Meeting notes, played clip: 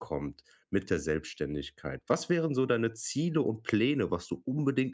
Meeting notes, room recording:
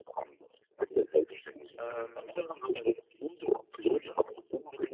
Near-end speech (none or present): present